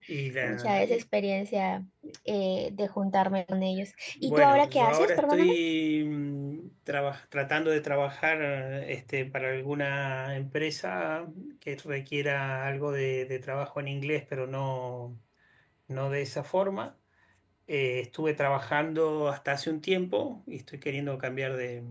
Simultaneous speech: Yes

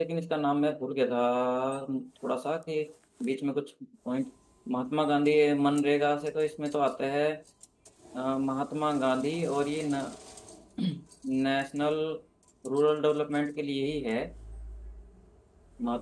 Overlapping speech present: No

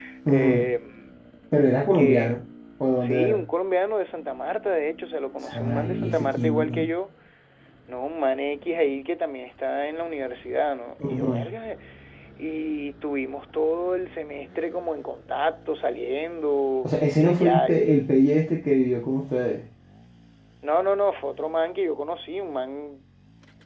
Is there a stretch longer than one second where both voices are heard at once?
Yes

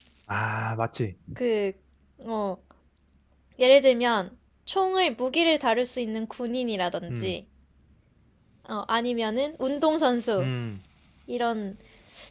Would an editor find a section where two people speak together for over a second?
No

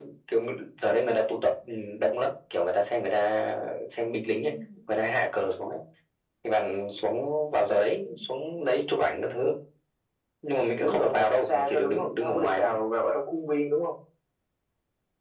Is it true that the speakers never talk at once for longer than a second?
No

